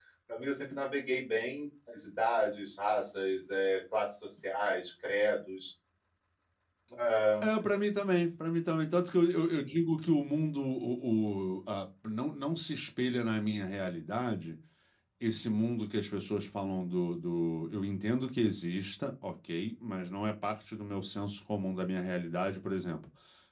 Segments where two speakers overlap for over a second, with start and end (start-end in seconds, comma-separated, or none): none